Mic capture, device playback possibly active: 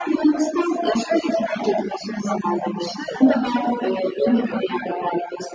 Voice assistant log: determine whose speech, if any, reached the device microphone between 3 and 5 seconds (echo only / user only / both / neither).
echo only